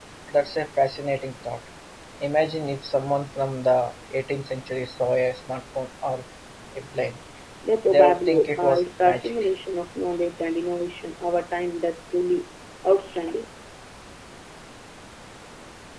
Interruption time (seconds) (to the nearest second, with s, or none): 8 s